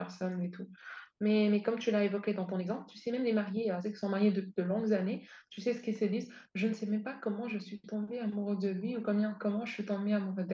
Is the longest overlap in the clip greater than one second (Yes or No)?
No